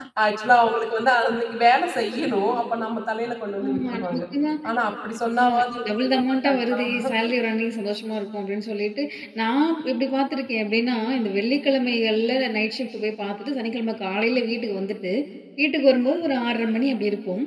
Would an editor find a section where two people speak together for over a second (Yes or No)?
Yes